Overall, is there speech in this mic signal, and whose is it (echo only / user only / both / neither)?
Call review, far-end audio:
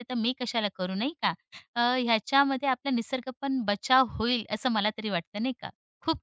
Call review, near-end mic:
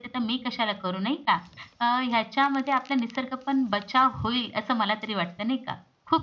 echo only